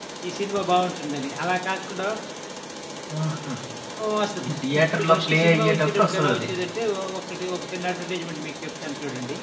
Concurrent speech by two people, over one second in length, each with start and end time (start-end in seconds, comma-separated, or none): 4.4-6.5